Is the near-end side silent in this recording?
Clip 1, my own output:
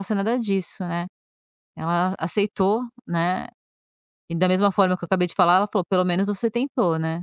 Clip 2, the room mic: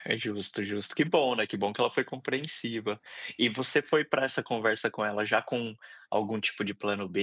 No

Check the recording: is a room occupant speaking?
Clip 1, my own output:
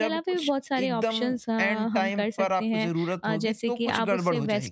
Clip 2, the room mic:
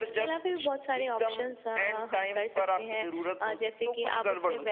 No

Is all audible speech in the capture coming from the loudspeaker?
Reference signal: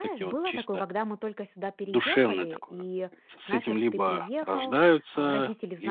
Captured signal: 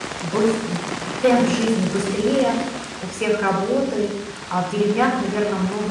No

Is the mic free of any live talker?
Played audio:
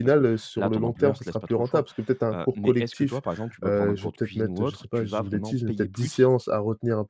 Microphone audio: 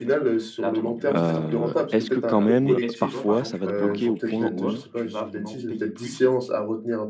No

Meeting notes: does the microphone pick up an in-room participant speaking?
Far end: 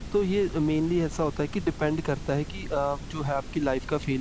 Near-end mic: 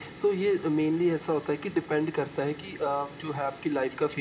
No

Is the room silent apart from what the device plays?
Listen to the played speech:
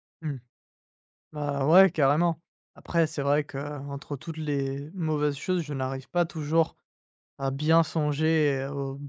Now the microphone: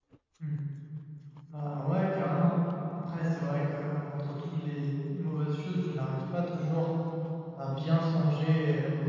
Yes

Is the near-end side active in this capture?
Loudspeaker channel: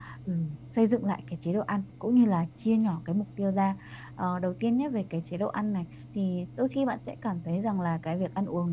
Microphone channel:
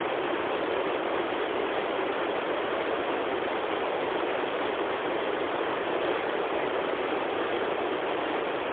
No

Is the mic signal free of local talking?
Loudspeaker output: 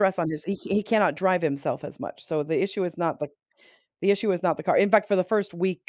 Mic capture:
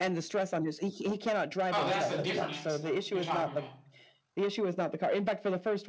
No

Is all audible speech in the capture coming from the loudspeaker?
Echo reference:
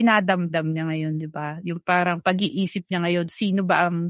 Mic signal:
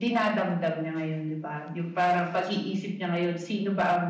Yes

